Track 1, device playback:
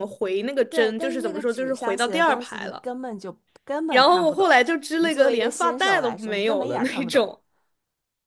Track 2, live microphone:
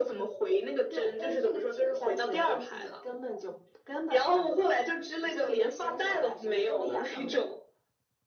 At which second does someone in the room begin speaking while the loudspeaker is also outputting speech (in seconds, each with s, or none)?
none